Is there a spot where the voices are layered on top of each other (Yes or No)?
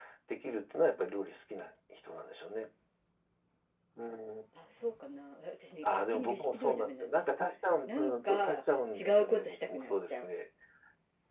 Yes